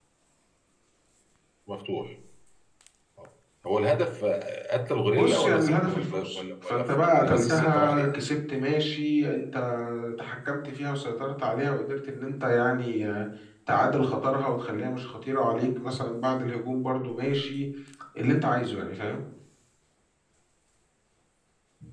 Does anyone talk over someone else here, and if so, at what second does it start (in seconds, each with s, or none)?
5.1 s